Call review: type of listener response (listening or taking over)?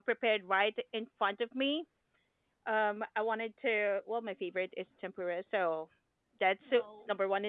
listening